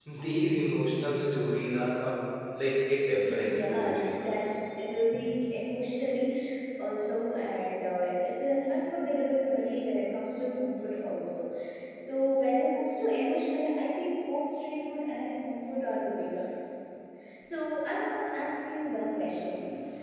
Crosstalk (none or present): present